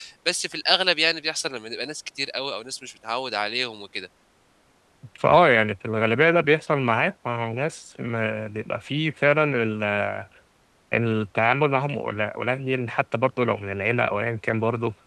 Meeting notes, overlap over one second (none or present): none